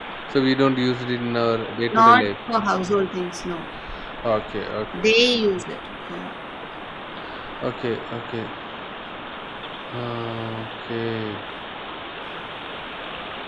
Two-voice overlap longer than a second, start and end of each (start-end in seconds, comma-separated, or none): none